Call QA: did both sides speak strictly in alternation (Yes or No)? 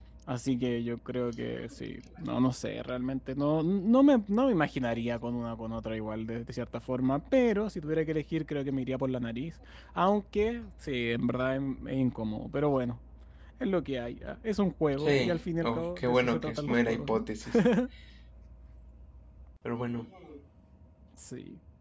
No